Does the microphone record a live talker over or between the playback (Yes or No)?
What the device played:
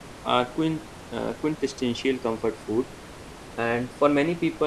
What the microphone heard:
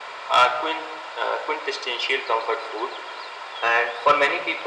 No